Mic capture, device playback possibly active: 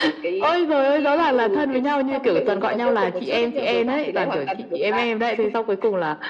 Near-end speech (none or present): none